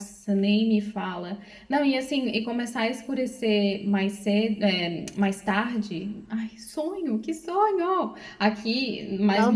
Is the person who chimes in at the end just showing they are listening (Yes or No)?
Yes